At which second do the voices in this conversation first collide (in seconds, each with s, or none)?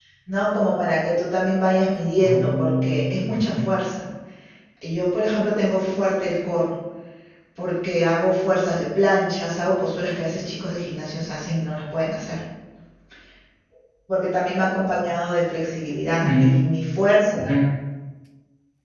2.2 s